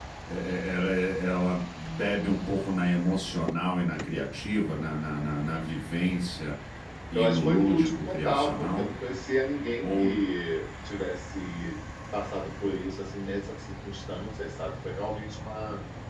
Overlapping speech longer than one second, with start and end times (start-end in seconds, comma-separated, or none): 7.1-8.8